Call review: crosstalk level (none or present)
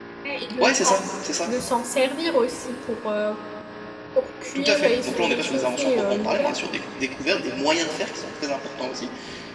present